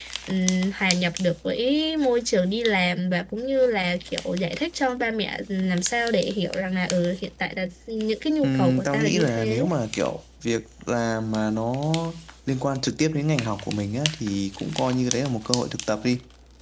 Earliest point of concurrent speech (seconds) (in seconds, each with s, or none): 8.4 s